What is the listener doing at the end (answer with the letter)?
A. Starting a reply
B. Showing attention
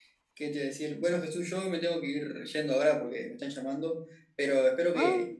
B